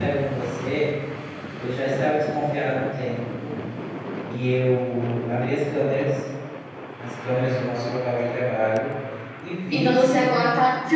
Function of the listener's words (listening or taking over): taking over